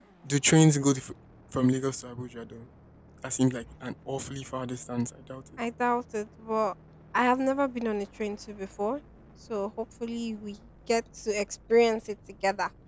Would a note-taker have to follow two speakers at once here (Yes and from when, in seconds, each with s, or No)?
No